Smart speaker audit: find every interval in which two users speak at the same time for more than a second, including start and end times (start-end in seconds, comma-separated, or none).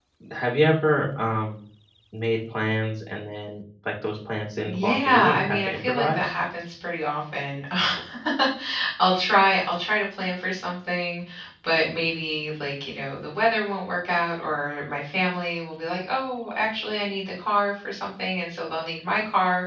4.6-6.4